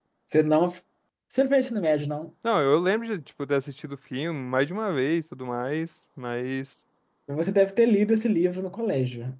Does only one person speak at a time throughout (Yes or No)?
Yes